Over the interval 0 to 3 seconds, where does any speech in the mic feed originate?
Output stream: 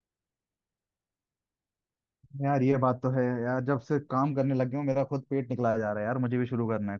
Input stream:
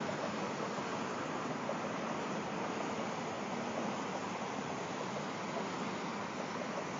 neither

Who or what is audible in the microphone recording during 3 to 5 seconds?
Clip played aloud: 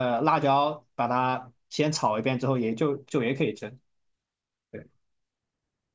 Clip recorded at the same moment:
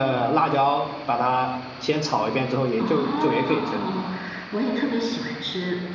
both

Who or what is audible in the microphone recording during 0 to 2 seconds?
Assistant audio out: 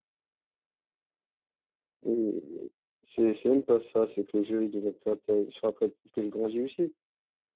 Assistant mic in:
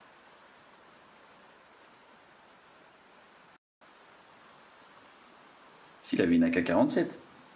neither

